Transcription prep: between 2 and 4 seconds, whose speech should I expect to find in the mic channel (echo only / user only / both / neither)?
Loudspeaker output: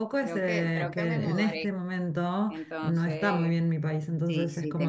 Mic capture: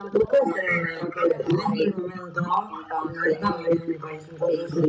echo only